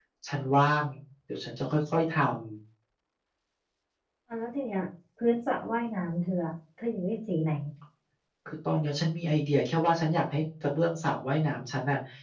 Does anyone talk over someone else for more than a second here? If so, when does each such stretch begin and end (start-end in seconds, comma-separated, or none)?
none